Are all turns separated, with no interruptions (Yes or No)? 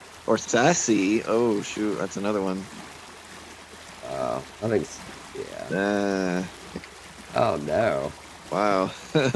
Yes